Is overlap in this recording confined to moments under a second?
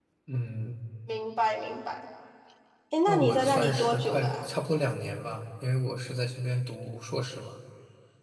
No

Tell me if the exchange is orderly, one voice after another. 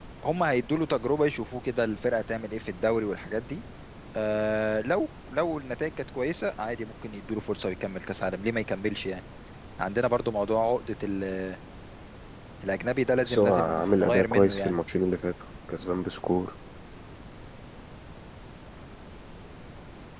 No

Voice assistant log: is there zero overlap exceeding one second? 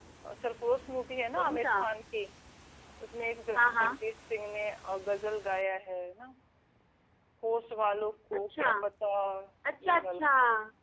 Yes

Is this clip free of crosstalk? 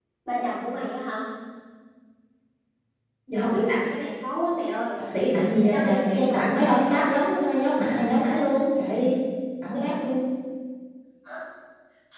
No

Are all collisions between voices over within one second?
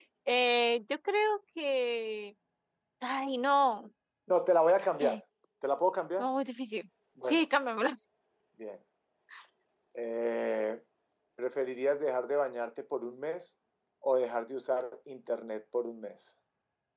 Yes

